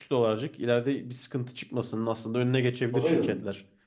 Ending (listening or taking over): taking over